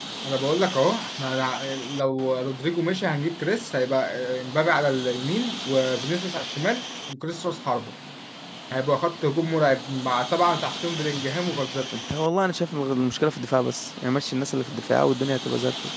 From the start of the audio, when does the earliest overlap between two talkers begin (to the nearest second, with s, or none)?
none